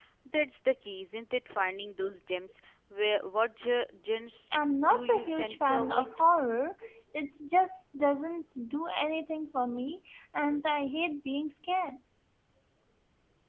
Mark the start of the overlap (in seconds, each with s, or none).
4.8 s